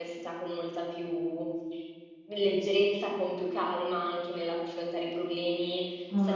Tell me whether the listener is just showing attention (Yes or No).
Yes